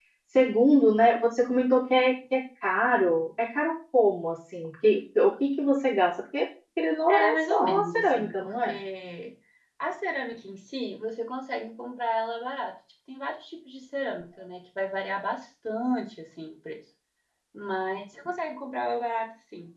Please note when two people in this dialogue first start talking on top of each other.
7.1 s

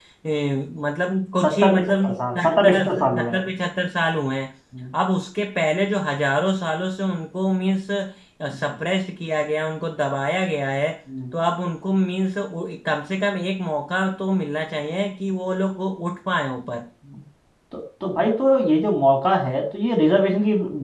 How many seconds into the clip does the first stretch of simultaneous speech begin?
1.4 s

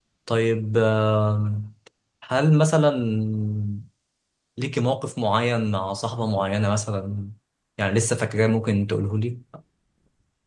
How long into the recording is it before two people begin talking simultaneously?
none

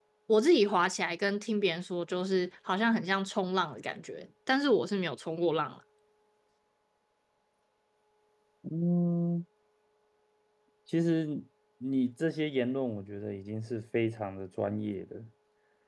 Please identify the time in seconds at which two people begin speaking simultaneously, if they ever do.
none

